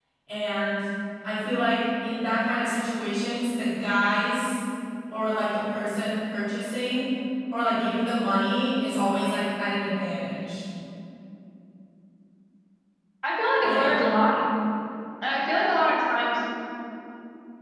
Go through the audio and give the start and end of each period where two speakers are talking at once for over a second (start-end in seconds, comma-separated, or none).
none